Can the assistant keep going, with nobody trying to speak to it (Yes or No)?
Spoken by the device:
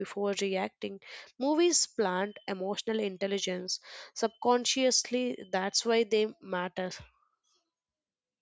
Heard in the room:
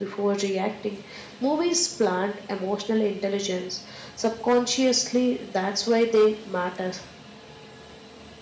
Yes